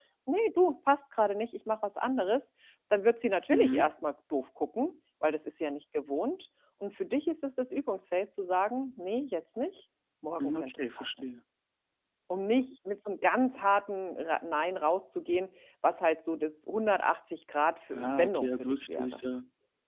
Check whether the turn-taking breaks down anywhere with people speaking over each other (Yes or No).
Yes